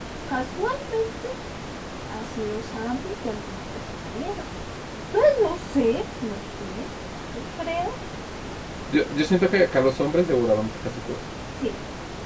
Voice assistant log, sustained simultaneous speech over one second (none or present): none